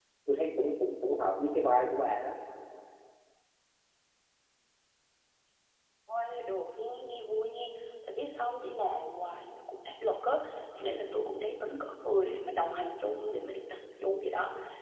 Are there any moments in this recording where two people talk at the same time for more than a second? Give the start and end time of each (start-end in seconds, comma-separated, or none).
none